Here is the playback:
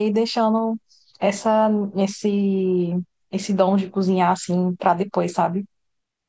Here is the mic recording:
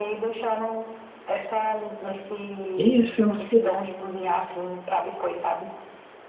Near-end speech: present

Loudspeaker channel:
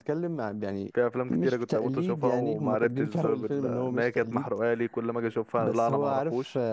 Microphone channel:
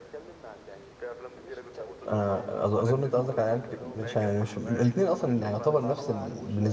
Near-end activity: present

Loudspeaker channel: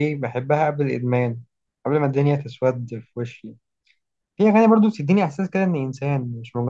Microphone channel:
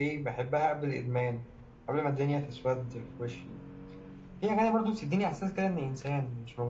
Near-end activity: none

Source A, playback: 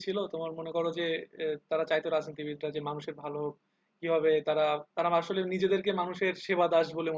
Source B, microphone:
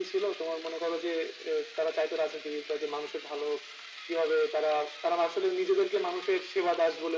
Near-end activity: none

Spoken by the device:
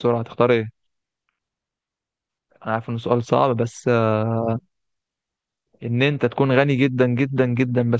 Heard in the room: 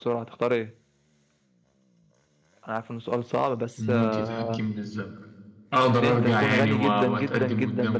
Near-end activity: present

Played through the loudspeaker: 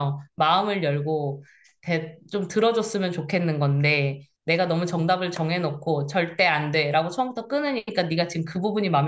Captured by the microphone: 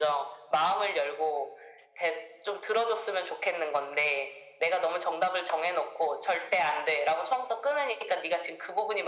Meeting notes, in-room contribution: none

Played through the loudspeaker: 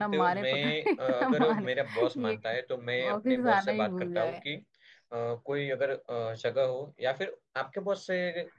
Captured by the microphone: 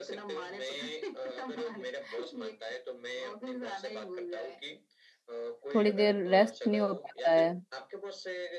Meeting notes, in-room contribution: present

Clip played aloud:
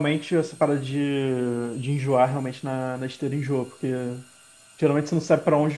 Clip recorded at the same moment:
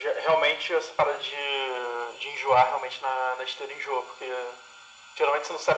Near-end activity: none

